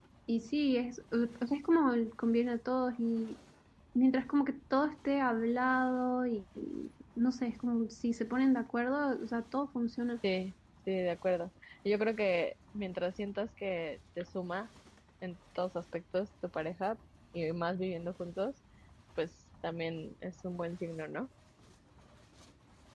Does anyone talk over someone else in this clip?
No

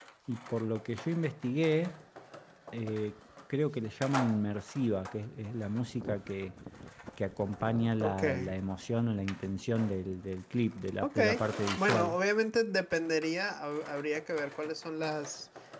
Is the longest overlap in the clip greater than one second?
No

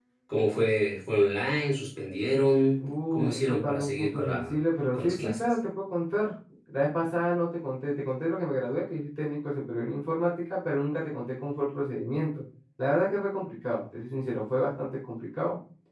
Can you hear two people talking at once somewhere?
Yes, from 2.8 s

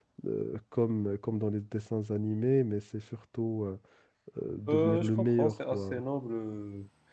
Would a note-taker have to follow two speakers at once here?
Yes, from 4.7 s

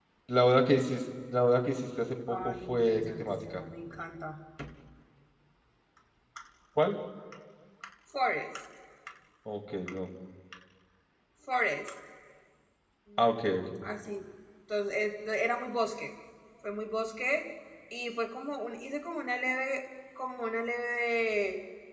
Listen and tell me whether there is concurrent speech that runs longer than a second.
Yes, from 2.3 s

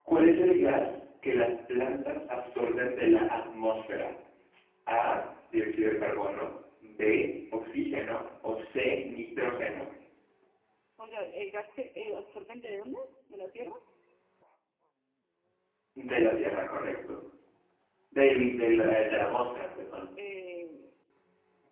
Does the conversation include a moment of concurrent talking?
No

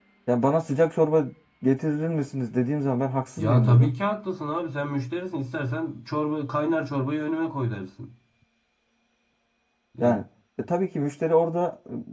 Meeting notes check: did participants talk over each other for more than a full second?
No

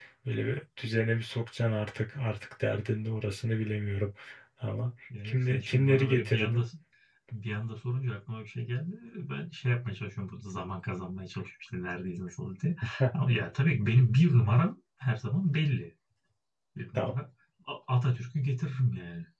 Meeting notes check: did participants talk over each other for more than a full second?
Yes, from 5.2 s

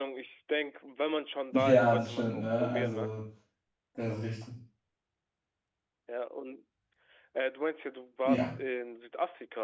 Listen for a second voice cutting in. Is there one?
Yes, from 1.5 s

